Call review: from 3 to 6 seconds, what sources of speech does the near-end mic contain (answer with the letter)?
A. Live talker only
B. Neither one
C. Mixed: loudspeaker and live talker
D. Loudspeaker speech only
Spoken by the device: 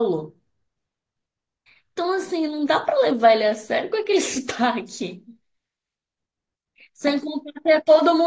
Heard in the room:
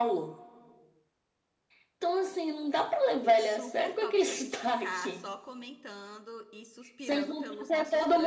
C